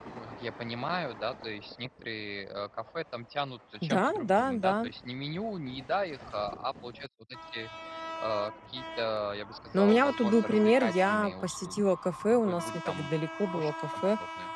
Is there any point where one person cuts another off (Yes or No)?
Yes